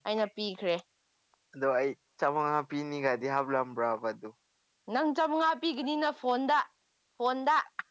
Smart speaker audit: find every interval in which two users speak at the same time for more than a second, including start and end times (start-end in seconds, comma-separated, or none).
none